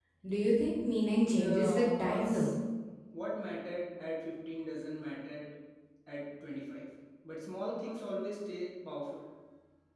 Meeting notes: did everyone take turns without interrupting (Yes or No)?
No